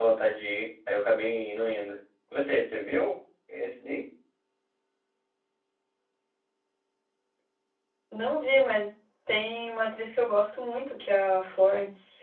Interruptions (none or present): none